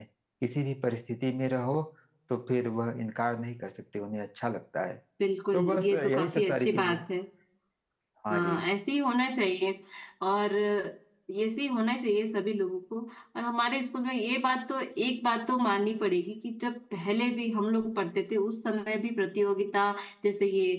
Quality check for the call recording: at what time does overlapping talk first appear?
5.5 s

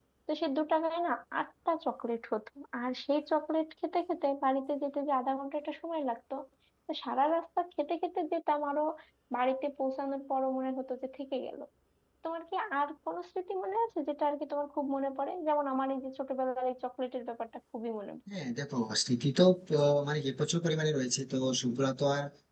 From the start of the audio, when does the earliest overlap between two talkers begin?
none

